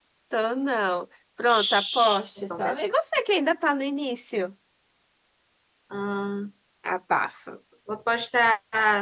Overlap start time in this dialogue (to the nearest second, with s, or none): 1 s